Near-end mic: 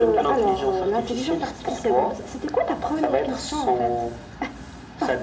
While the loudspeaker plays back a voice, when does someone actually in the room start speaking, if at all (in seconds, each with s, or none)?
none